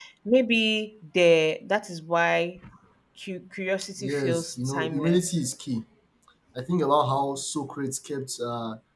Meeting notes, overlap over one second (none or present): present